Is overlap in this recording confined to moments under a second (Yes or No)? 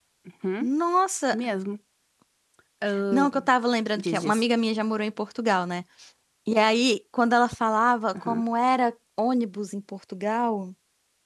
Yes